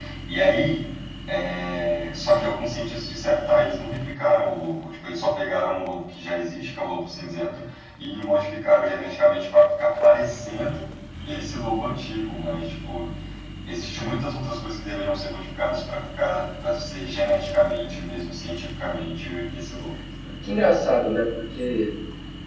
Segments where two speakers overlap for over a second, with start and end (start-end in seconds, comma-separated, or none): none